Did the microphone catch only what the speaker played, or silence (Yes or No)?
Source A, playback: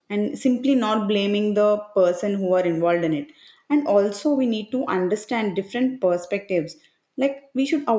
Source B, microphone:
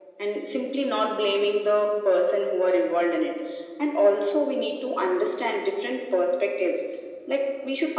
Yes